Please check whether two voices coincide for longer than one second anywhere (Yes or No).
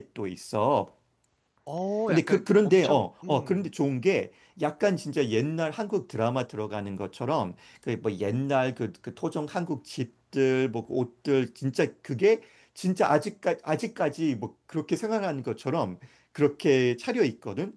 Yes